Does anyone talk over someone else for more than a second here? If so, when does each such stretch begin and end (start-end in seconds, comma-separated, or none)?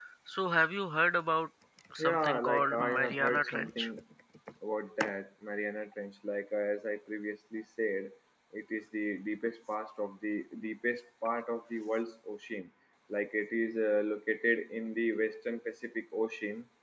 2.0-3.9